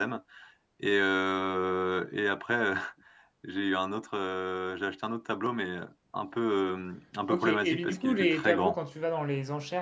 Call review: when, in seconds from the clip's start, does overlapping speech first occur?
7.3 s

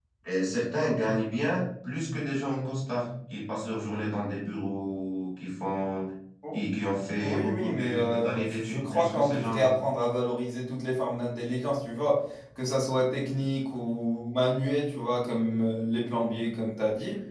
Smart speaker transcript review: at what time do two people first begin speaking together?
7.2 s

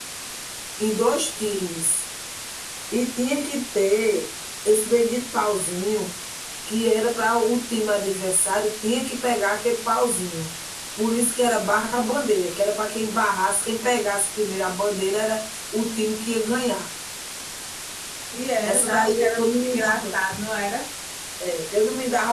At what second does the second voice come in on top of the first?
18.6 s

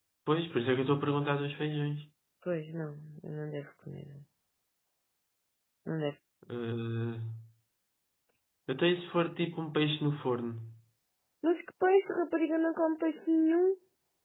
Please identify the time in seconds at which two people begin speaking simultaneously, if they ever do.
none

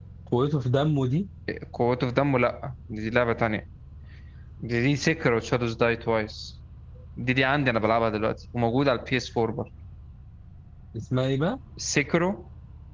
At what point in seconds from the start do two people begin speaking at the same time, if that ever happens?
none

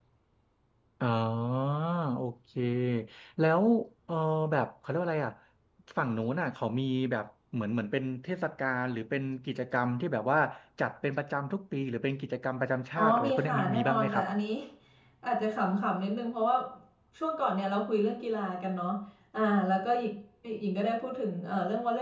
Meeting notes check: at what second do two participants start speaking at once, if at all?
13.0 s

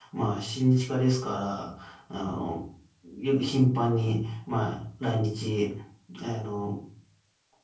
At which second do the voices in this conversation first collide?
none

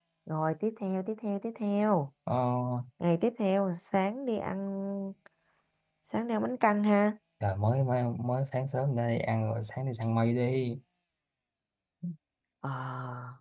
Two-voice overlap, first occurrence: none

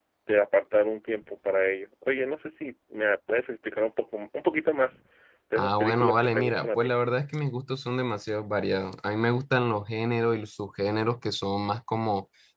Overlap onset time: 5.6 s

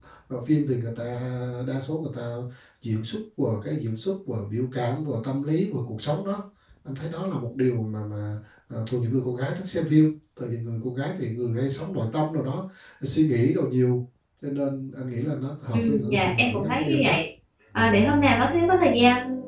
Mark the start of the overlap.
15.7 s

